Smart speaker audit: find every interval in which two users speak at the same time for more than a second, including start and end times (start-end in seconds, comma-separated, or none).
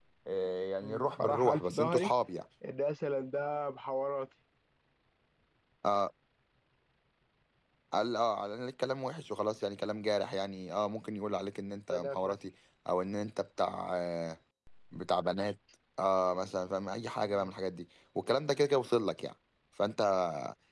0.8-2.1